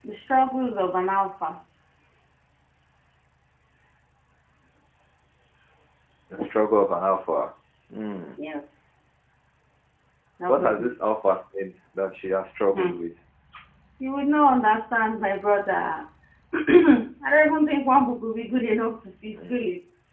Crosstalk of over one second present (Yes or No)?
No